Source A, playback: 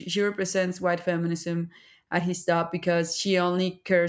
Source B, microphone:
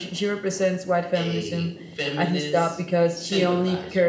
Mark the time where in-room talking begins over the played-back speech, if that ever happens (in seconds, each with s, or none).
1.1 s